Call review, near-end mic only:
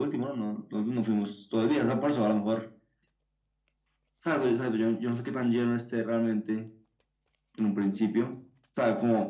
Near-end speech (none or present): none